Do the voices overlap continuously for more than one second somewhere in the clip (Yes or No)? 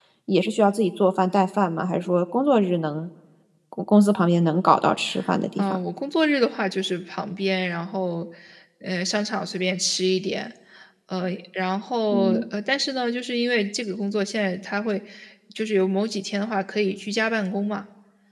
No